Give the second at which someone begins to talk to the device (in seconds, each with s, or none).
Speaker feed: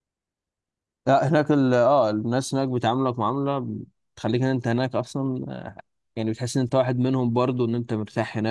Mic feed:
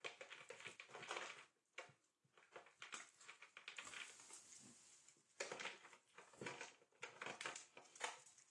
none